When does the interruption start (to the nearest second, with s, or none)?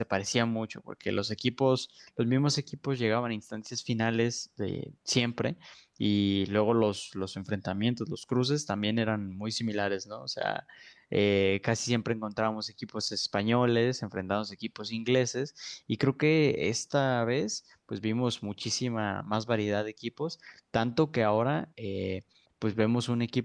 none